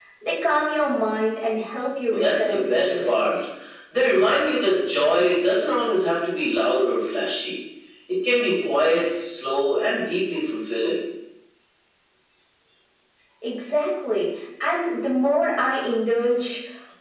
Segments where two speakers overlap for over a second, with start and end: 2.1-3.3

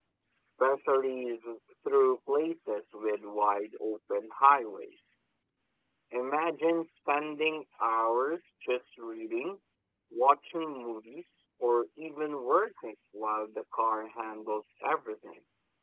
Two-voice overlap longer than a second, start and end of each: none

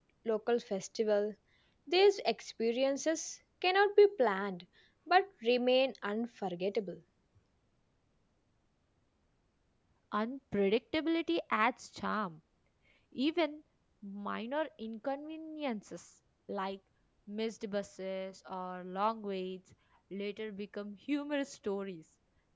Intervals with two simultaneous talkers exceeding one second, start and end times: none

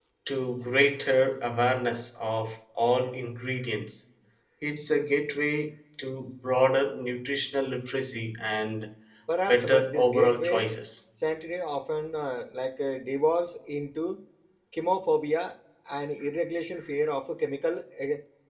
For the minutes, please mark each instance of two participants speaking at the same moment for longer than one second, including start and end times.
9.5-10.7

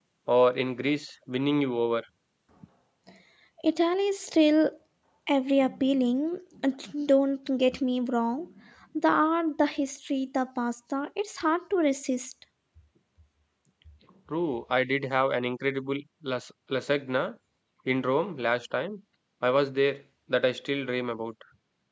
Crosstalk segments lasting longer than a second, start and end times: none

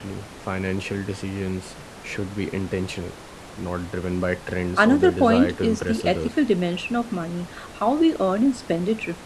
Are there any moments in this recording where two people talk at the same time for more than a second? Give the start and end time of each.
4.8-6.3

